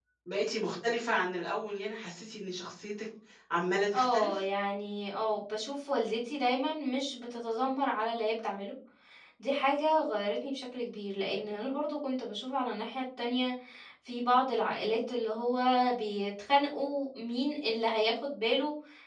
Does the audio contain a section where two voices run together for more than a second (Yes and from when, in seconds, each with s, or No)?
No